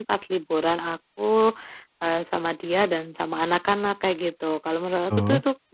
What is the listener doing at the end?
listening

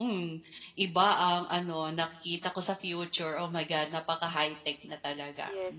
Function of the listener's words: taking over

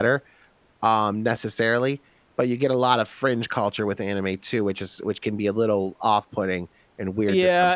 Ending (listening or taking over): taking over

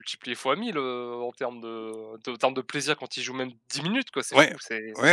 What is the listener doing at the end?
taking over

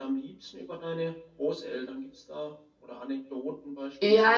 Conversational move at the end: taking over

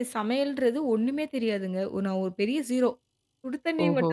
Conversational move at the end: listening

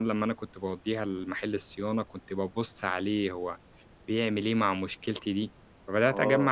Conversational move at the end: taking over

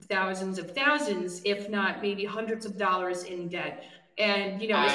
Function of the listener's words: listening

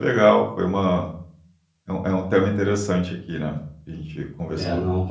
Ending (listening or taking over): taking over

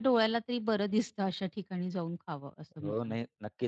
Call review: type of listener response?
taking over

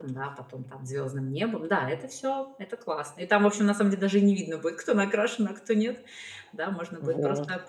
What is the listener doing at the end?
listening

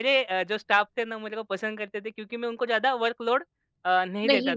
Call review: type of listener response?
listening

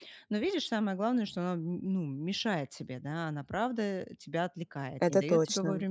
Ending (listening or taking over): listening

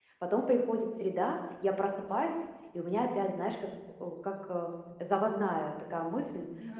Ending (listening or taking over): listening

